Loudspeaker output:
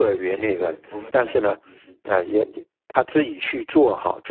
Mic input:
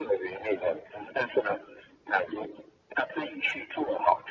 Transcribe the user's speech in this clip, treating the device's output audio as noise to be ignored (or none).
none